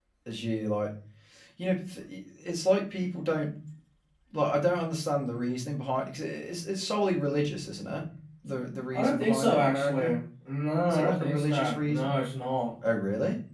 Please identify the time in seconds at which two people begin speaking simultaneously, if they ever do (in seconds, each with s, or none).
8.9 s